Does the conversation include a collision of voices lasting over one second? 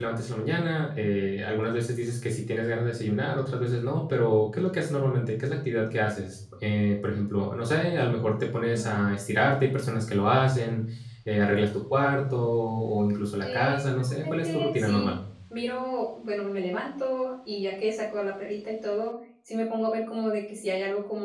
Yes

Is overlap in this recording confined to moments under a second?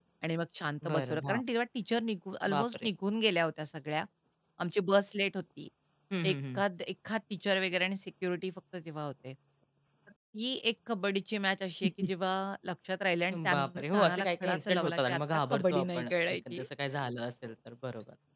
No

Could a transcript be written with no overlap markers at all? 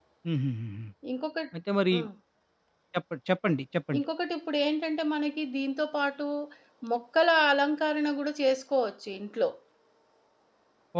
Yes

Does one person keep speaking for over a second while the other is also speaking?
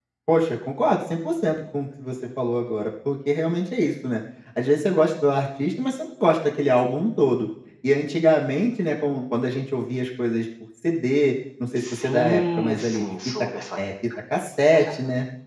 Yes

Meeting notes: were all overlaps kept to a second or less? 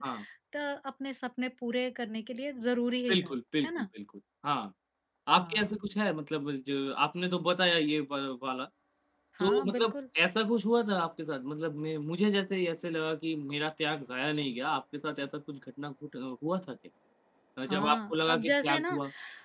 No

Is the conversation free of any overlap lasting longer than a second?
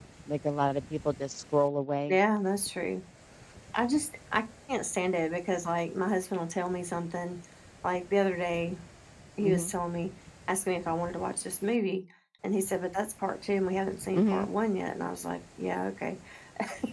Yes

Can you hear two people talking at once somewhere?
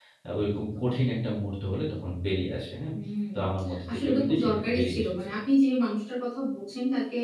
Yes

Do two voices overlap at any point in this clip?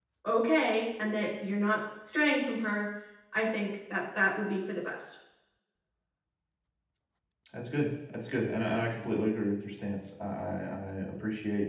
No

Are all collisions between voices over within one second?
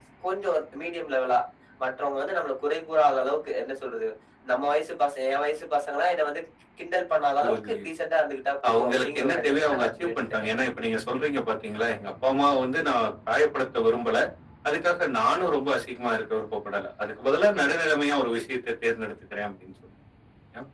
No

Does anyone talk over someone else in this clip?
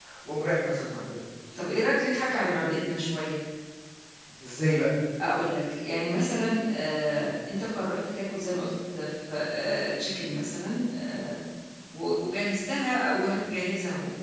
No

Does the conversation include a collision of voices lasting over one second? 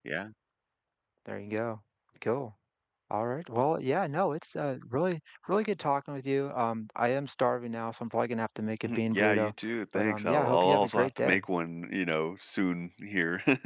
Yes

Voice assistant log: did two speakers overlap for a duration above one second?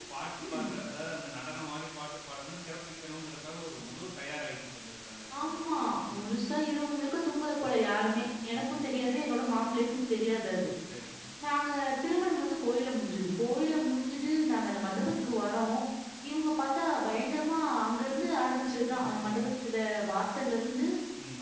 No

